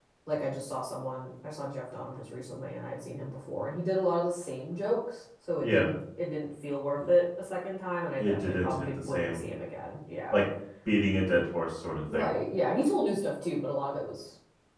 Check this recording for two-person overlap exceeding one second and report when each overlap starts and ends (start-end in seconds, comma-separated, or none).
8.2-9.4